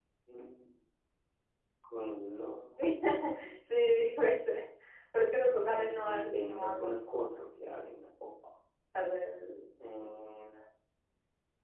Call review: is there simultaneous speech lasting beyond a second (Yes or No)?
Yes